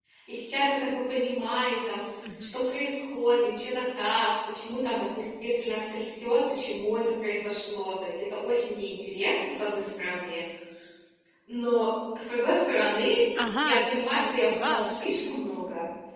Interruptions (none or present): present